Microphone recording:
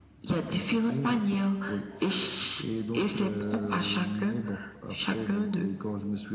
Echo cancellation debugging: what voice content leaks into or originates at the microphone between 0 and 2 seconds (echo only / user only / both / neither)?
echo only